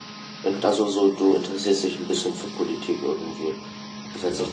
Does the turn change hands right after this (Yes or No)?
No